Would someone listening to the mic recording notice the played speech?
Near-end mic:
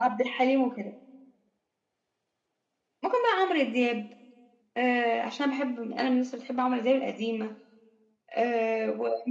Yes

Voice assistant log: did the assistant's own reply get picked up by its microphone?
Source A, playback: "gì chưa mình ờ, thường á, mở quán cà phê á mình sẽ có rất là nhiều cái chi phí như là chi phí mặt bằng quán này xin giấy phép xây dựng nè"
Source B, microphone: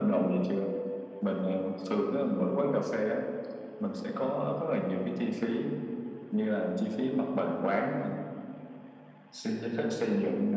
Yes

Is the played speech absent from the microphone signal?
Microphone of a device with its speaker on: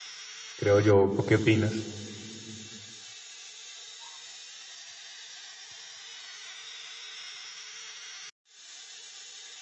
Yes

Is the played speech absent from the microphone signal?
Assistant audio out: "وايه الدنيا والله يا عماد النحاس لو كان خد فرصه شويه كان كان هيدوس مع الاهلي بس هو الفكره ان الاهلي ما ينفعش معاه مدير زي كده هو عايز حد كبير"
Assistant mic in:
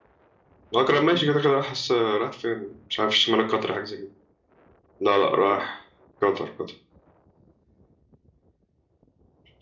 Yes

